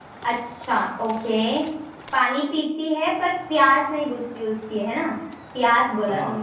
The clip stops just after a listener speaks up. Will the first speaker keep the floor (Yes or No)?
Yes